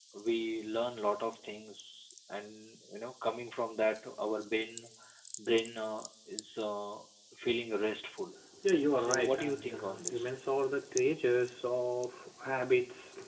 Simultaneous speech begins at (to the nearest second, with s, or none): 9 s